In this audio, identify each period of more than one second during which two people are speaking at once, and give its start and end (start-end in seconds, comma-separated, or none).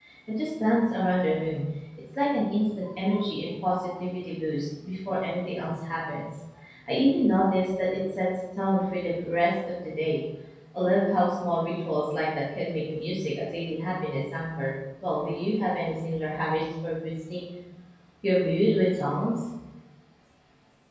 none